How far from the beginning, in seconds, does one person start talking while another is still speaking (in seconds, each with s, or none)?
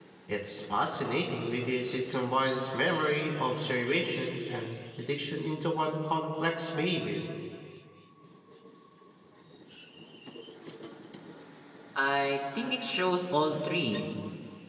none